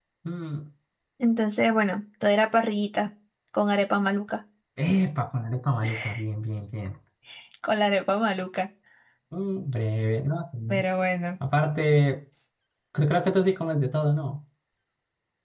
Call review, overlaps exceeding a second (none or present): none